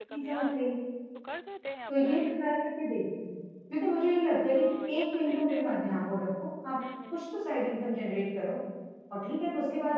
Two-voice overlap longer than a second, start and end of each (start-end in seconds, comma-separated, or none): 4.5-5.8